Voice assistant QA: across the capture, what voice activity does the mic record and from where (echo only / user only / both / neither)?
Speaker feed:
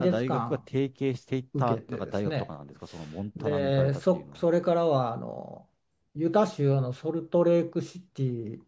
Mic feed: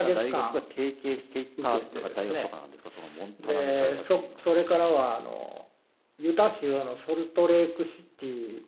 echo only